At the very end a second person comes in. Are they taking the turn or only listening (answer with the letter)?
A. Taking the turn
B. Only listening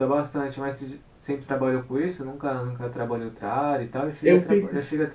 B